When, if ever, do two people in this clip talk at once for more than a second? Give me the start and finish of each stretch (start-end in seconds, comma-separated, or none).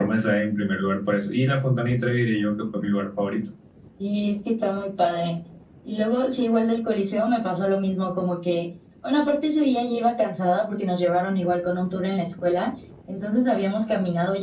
none